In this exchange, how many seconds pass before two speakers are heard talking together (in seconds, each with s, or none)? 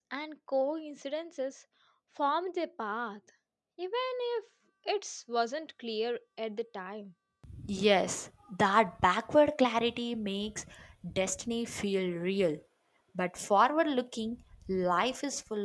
none